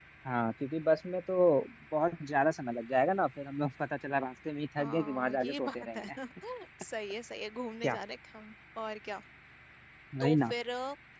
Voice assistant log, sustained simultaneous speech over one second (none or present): present